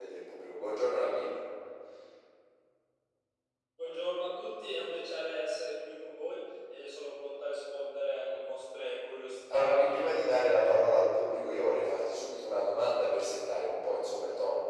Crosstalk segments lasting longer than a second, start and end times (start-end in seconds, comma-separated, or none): 9.5-10.7